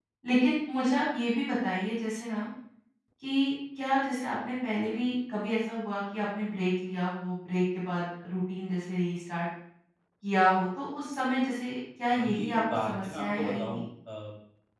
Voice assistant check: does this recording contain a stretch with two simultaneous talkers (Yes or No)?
Yes